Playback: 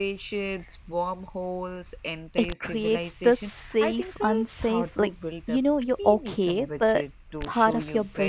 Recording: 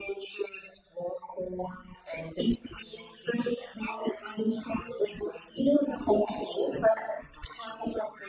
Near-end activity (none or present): none